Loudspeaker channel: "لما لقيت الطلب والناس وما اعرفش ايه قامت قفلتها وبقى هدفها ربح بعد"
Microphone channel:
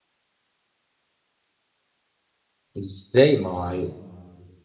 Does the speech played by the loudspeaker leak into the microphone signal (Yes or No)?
No